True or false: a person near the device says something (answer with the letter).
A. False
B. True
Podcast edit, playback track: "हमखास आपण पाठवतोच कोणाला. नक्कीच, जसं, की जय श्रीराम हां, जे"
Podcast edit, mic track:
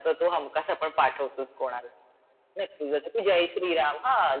A